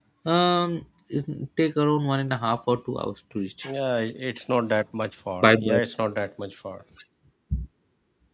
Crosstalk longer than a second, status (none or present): none